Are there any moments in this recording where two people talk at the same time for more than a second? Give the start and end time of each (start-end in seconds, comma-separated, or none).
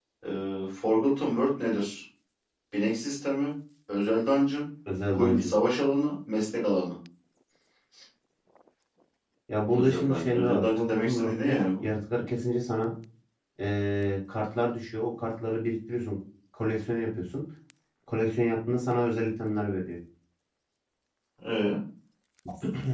9.7-11.9